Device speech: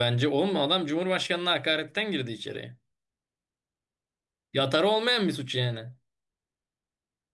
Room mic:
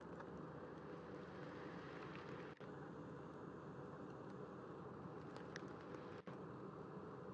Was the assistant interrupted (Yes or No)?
No